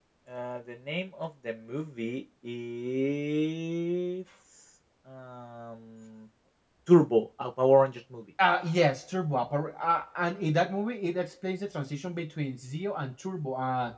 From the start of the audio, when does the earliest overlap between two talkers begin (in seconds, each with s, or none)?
none